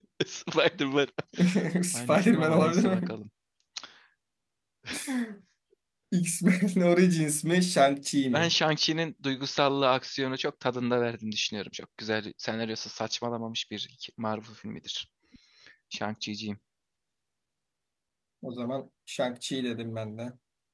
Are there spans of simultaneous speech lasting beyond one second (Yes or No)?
Yes